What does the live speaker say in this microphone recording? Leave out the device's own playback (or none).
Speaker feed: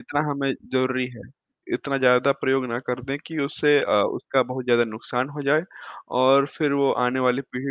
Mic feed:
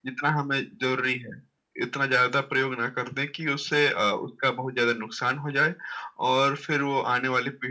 none